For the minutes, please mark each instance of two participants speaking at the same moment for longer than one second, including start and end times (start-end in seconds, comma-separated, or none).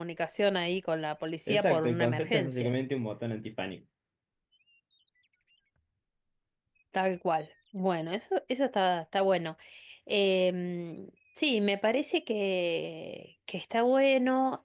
1.5-2.7